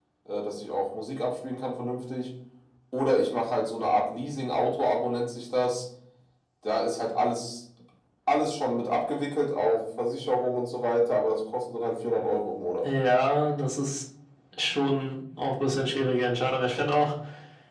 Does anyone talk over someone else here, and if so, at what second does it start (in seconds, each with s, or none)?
none